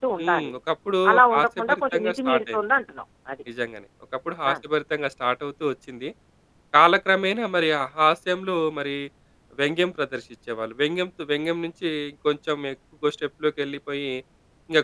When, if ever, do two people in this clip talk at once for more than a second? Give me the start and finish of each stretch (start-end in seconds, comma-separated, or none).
1.1-2.6